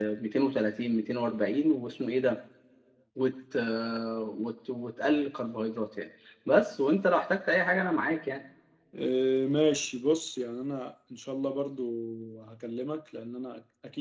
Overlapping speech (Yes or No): No